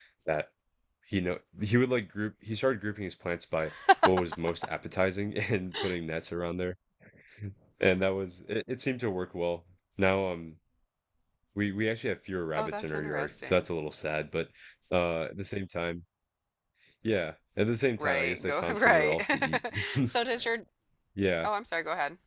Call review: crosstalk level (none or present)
present